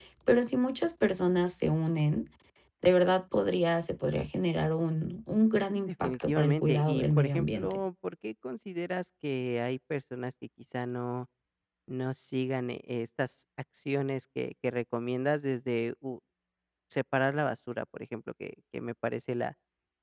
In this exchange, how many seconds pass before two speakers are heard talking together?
5.8 s

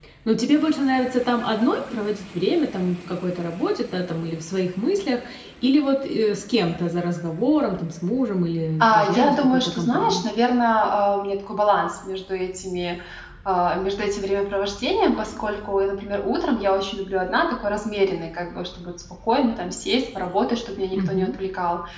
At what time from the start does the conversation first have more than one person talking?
8.8 s

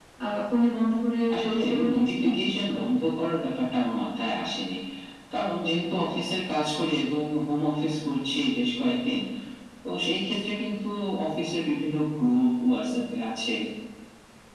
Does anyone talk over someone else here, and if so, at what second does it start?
1.3 s

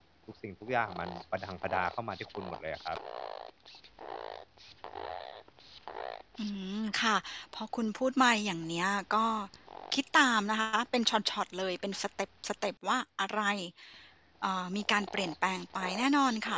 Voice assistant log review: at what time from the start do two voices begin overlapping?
none

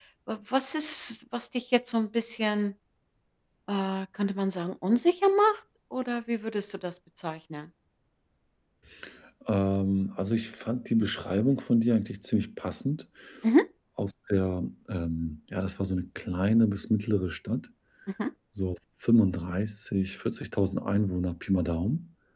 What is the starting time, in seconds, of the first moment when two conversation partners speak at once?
none

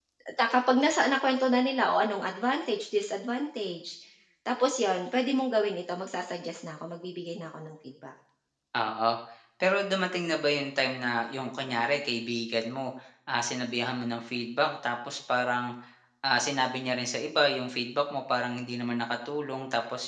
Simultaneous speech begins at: none

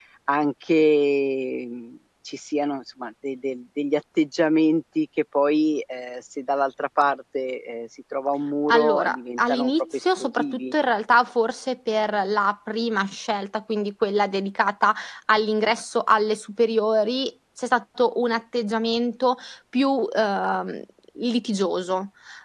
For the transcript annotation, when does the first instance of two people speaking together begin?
8.7 s

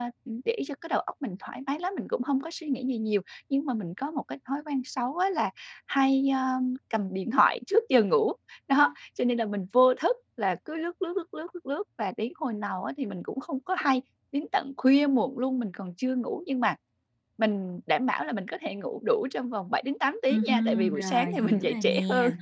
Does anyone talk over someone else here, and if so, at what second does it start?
20.3 s

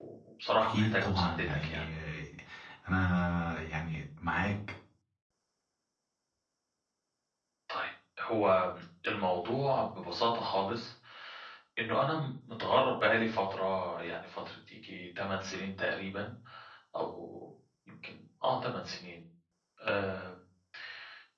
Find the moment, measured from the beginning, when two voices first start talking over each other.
0.6 s

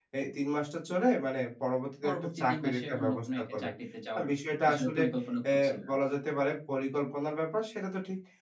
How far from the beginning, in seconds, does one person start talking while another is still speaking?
2.0 s

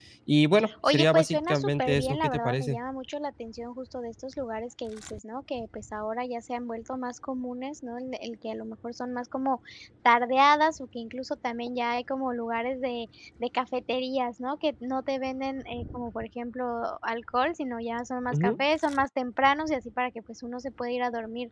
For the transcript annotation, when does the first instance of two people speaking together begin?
0.9 s

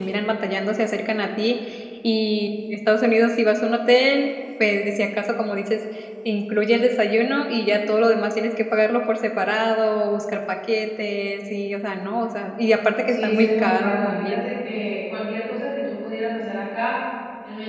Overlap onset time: 13.1 s

